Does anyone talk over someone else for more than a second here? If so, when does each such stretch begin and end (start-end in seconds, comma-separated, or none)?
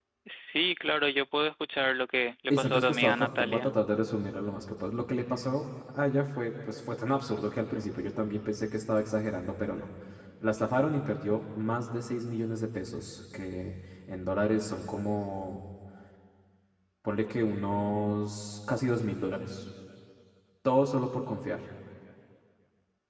2.5-3.7